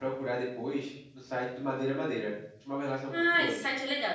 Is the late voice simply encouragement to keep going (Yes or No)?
No